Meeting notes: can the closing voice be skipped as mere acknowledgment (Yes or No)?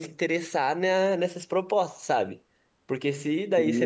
Yes